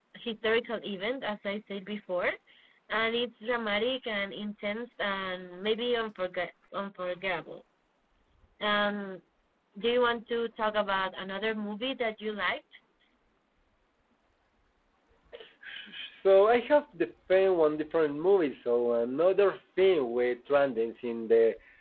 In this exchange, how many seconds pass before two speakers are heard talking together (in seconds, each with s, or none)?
none